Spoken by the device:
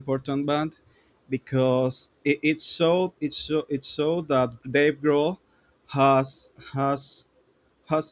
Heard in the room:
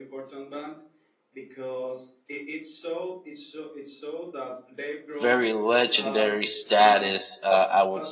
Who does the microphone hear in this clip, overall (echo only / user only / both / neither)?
both